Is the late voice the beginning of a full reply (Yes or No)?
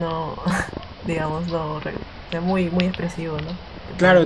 Yes